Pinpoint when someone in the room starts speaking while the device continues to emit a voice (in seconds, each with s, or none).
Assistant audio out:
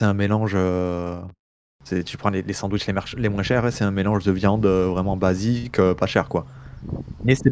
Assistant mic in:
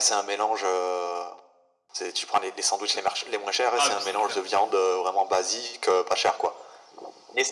2.9 s